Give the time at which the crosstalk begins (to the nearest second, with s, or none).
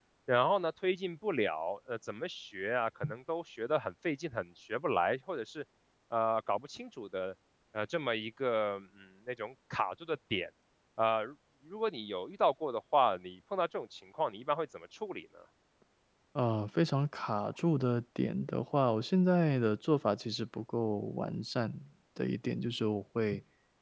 none